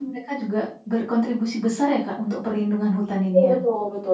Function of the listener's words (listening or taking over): taking over